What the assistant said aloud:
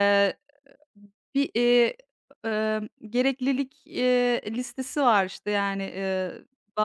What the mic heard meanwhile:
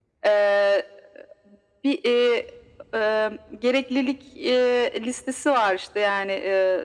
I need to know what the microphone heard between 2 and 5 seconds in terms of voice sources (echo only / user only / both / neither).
echo only